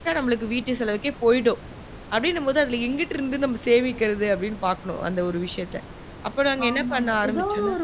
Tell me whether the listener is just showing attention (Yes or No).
No